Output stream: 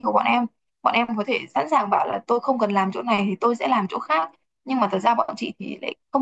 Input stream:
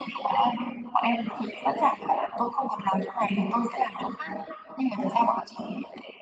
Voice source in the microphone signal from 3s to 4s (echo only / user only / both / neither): echo only